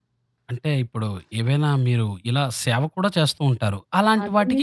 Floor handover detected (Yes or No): Yes